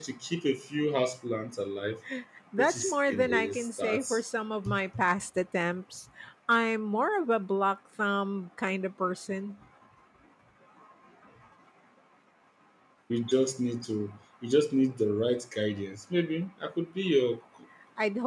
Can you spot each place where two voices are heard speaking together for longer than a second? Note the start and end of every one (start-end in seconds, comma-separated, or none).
2.6-4.0